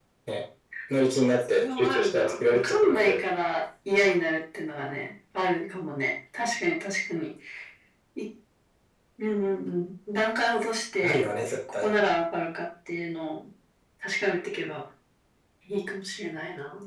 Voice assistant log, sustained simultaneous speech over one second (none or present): present